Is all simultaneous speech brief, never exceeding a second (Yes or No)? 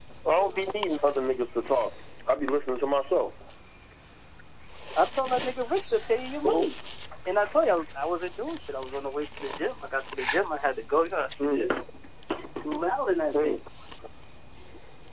Yes